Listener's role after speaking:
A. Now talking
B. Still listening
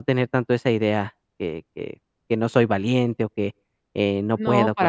A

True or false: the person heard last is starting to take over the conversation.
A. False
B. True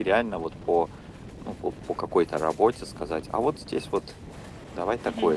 B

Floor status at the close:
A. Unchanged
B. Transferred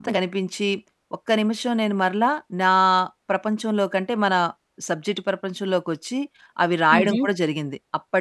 A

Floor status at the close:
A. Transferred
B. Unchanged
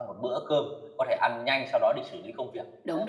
A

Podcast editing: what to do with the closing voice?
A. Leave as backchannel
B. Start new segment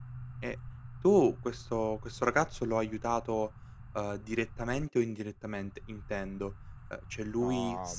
A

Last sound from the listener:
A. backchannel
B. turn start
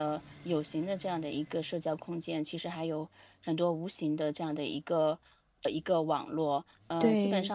A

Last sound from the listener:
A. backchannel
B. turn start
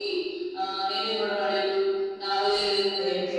A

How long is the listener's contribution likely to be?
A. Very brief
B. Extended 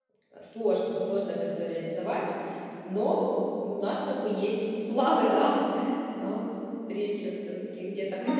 B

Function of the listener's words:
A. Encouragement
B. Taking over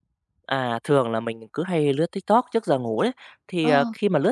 A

